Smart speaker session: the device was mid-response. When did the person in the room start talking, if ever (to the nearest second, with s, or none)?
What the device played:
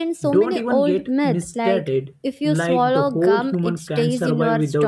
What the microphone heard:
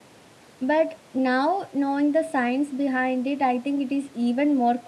1 s